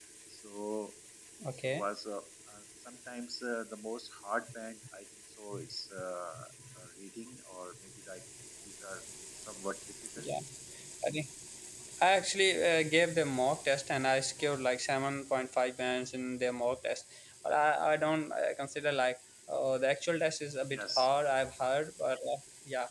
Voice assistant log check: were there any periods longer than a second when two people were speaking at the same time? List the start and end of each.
none

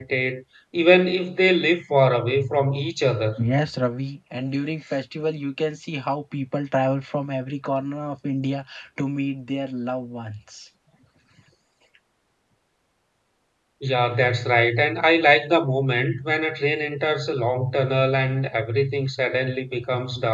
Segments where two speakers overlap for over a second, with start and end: none

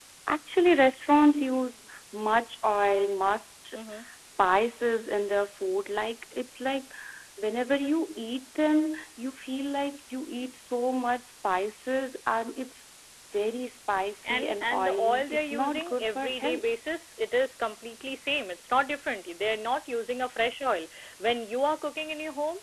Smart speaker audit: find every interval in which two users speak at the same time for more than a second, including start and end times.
14.2-16.6

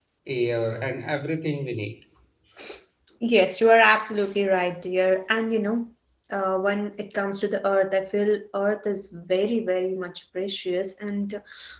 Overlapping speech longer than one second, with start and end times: none

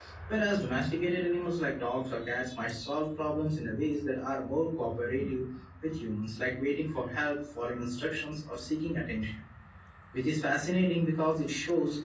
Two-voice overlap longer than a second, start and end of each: none

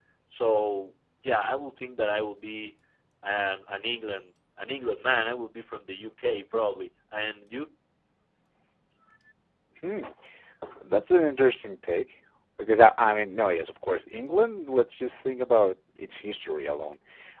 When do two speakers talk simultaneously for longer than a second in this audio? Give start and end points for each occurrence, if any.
none

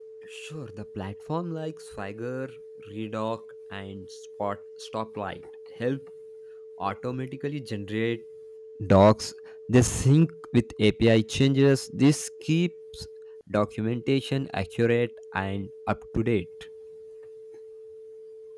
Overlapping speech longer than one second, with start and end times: none

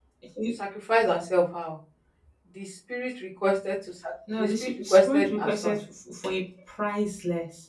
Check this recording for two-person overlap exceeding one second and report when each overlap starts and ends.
4.4-5.8

